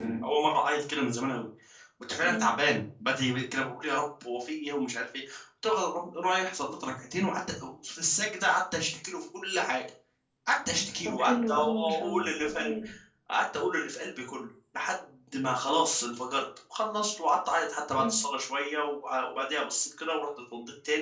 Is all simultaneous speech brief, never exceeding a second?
No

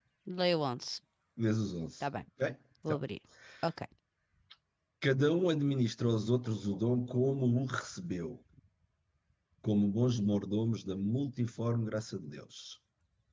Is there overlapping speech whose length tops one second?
No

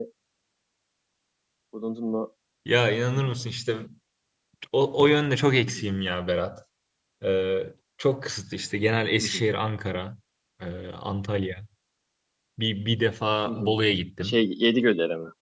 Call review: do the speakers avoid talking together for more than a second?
Yes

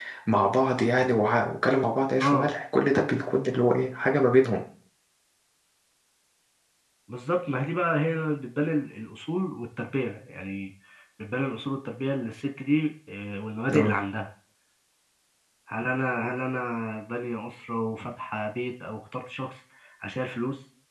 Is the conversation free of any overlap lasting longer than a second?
Yes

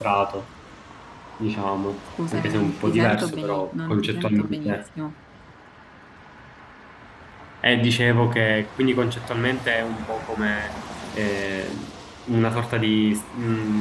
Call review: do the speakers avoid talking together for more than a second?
No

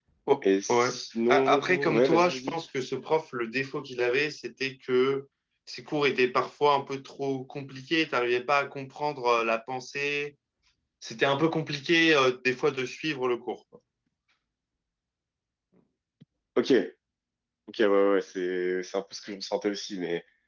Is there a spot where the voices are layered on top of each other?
Yes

